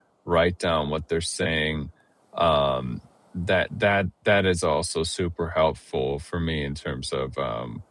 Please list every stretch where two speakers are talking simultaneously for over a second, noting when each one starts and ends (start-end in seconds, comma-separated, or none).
none